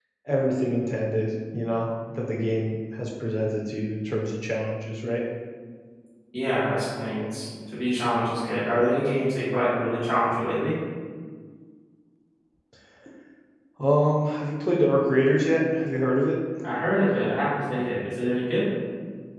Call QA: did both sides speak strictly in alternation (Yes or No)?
Yes